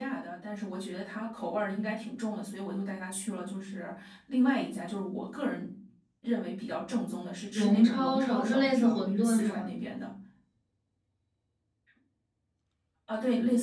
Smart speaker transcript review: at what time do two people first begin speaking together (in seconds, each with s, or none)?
7.5 s